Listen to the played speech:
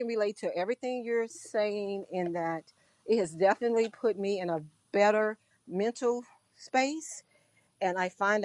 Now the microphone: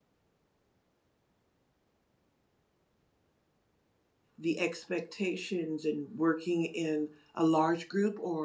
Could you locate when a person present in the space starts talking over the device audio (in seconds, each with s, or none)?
4.4 s